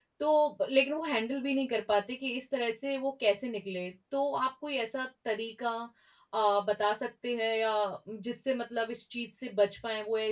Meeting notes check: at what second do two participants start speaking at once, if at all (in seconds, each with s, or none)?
none